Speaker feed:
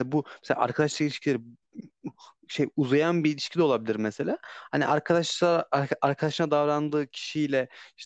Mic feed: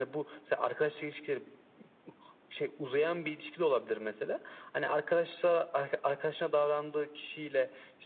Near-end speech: none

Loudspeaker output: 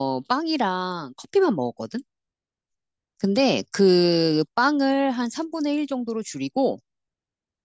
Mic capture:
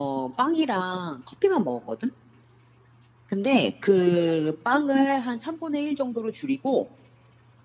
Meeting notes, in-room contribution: none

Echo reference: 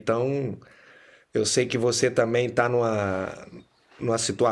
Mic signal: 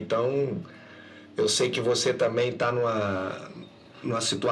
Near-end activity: none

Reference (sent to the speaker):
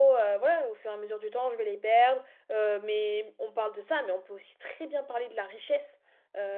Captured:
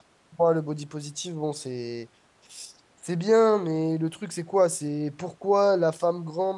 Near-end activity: present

